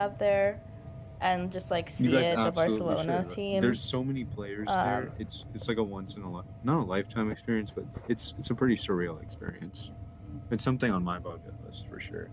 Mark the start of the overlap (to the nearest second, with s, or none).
2 s